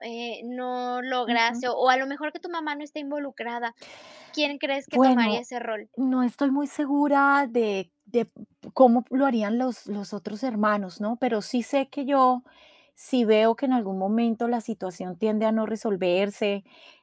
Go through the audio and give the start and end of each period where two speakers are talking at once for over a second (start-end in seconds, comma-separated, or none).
none